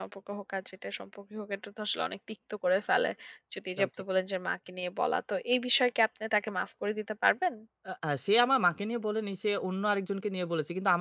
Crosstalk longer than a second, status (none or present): none